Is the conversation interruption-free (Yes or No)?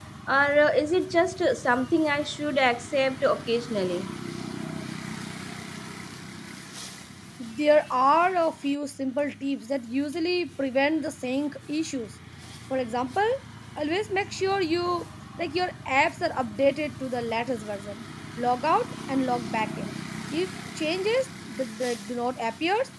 Yes